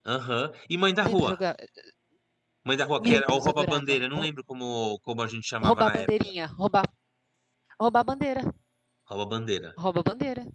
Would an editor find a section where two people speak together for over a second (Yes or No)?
Yes